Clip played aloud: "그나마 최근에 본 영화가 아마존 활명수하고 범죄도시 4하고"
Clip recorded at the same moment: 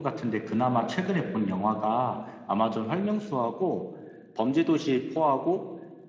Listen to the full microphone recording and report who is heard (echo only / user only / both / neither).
echo only